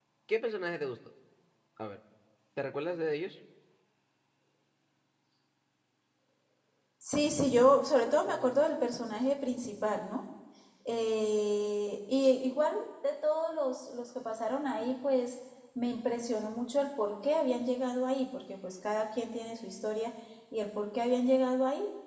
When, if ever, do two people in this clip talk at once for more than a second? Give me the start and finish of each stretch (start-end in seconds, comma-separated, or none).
none